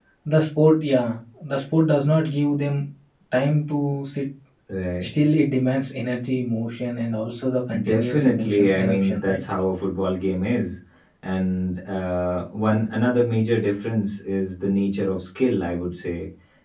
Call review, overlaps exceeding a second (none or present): present